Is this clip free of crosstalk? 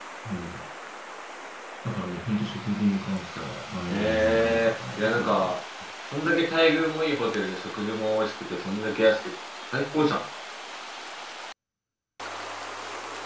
No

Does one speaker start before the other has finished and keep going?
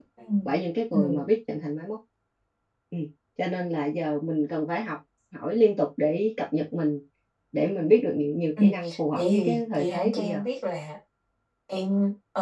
Yes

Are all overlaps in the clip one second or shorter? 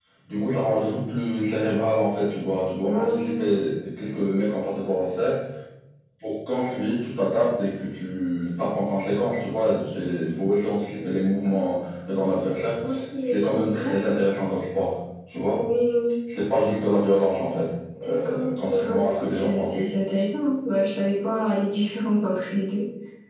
No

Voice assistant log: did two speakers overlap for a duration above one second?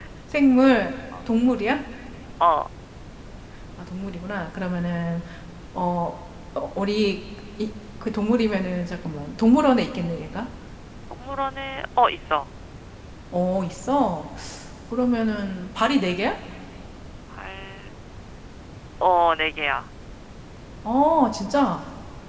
No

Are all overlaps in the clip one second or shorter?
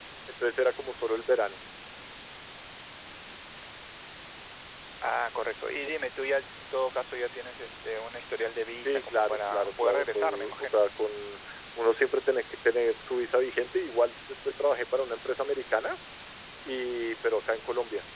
No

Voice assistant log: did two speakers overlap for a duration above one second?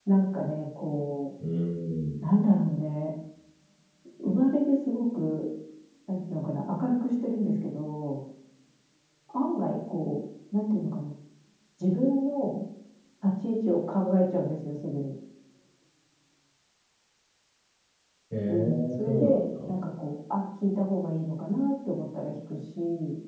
Yes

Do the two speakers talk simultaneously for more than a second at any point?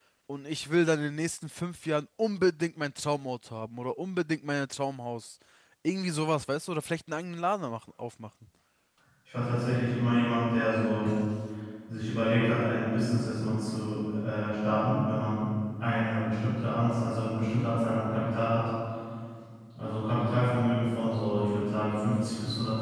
No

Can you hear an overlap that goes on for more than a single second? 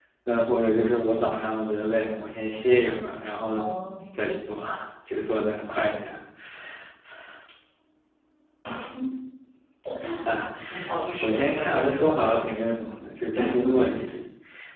Yes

